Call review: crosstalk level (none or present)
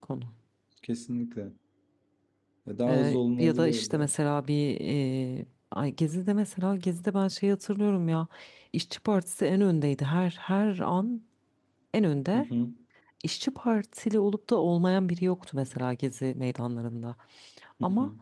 present